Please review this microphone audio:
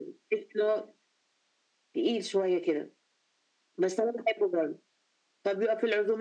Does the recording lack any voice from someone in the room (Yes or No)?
Yes